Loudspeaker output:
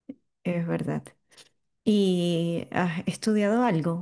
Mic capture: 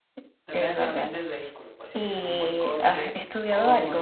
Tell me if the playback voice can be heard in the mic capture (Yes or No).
Yes